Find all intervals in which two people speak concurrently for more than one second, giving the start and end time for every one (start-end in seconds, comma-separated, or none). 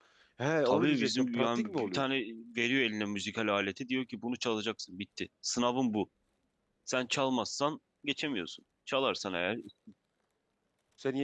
0.6-2.0